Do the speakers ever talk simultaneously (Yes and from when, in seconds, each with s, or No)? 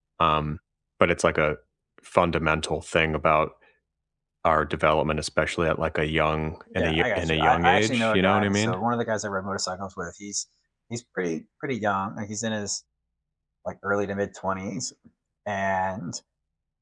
Yes, from 6.8 s